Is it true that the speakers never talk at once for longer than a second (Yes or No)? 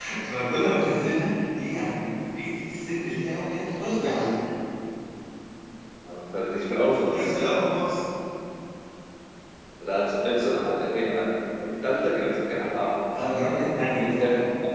Yes